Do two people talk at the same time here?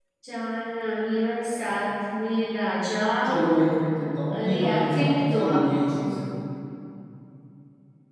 Yes, from 4.3 s

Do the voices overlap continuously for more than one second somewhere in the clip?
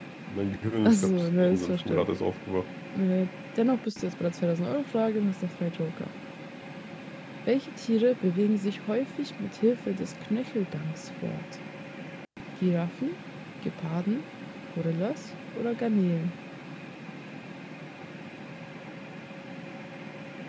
Yes, from 0.8 s

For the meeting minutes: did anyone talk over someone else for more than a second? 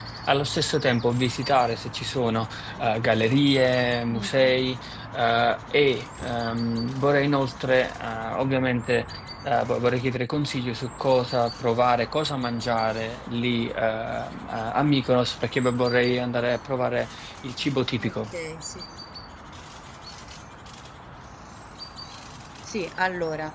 No

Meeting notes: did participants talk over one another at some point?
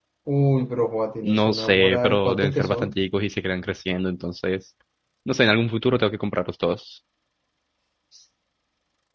Yes, from 1.2 s

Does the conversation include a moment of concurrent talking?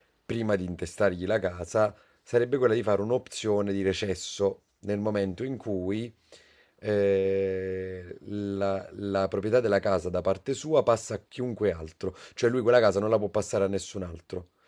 No

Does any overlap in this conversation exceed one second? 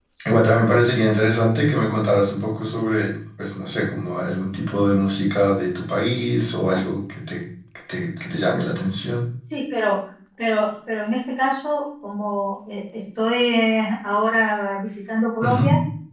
No

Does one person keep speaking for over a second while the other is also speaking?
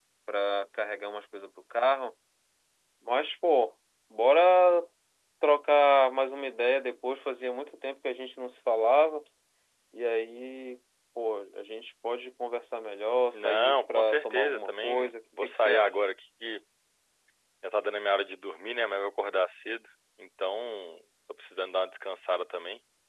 Yes, from 13.3 s

